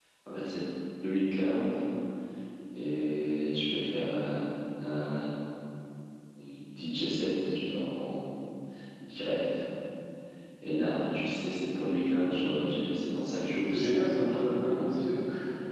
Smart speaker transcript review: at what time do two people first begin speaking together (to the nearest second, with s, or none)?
14 s